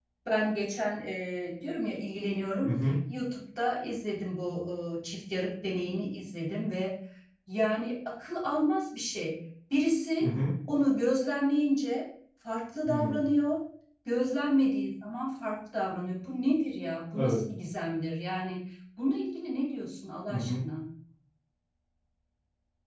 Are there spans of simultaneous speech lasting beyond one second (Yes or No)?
No